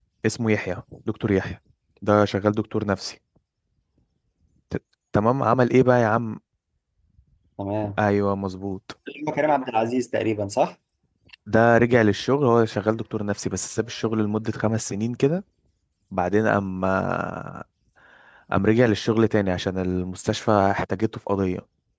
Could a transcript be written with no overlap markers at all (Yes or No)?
Yes